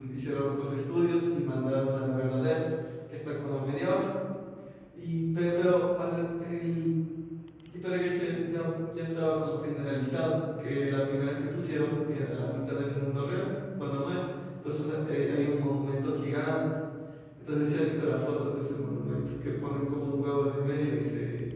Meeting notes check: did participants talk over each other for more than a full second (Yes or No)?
No